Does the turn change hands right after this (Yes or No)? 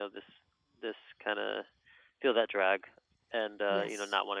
No